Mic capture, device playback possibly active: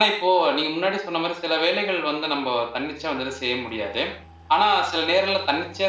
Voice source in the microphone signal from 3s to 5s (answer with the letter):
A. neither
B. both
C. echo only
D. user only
C